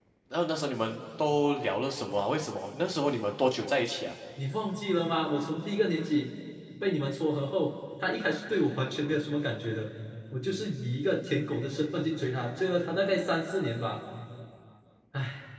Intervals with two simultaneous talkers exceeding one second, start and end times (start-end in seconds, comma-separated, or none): none